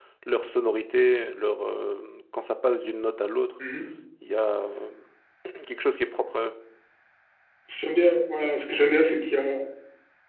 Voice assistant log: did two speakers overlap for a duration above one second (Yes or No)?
No